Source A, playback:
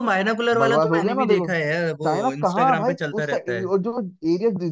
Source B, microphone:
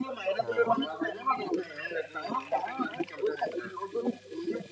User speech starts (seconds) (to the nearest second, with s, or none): 0 s